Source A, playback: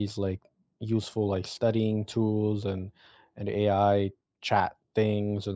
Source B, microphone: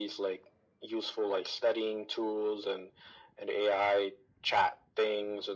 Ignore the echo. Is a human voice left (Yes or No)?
No